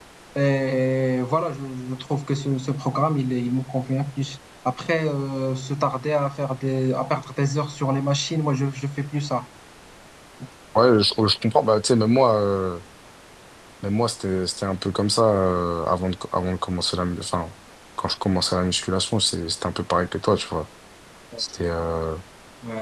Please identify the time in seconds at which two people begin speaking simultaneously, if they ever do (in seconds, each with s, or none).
none